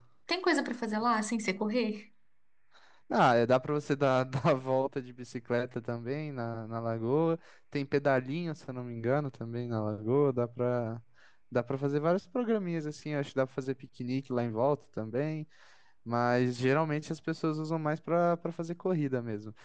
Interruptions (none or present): none